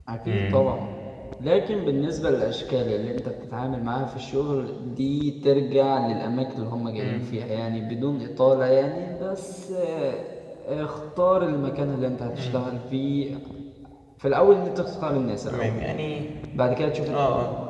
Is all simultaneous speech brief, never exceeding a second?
Yes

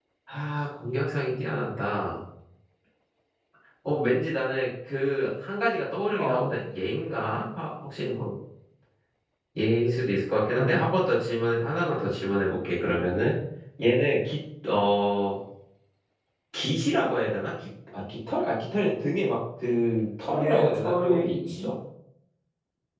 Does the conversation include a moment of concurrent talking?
Yes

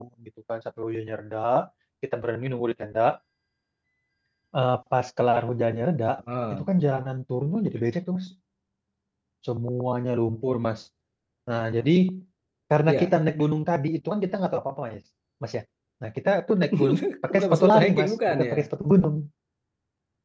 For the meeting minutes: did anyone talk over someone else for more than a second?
Yes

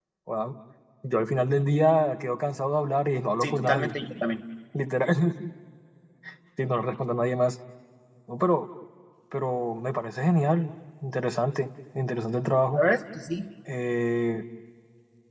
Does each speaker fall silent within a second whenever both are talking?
Yes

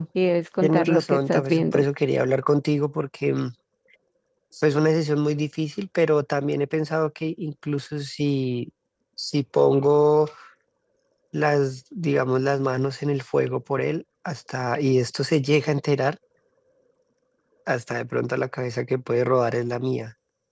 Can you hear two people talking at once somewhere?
Yes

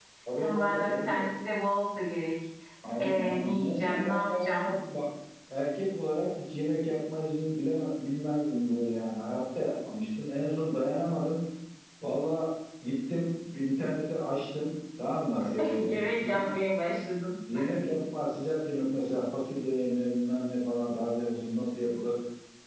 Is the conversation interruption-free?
No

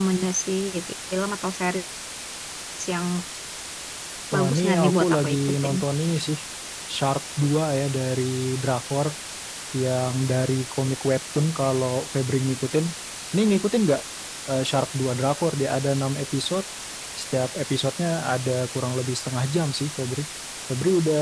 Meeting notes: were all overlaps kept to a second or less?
No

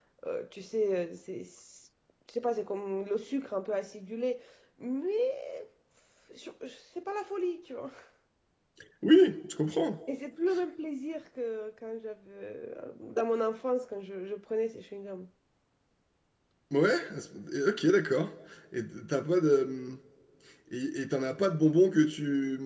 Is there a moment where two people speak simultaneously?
No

